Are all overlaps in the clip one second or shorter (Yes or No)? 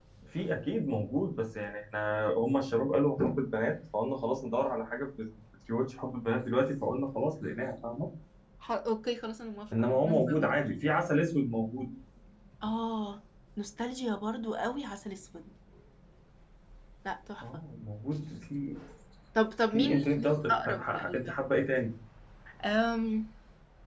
No